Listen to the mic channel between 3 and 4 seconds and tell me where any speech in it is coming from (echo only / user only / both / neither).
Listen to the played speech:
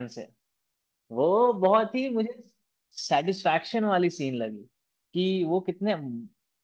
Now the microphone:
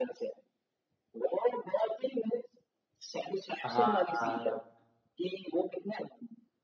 both